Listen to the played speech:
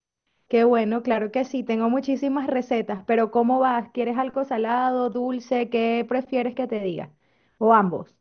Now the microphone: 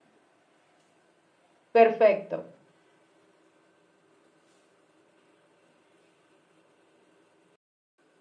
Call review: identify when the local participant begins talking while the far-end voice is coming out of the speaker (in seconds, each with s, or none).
1.7 s